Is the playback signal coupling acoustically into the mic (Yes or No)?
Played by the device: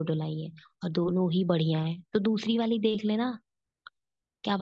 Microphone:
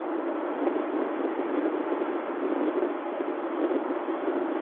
No